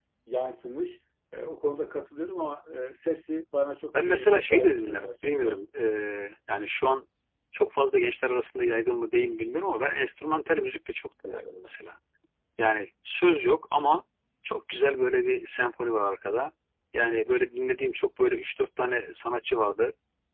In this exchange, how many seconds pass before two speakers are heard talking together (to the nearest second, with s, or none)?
4 s